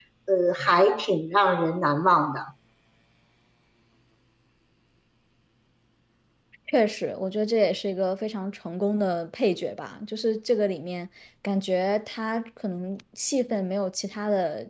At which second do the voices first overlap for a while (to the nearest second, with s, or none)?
none